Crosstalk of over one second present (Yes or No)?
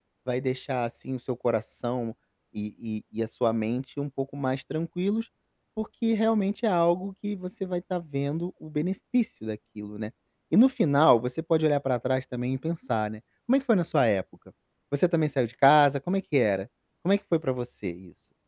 No